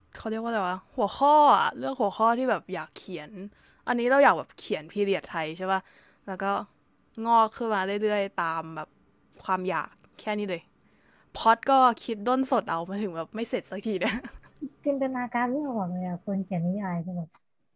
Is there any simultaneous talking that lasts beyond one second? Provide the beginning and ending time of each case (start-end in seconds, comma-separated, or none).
none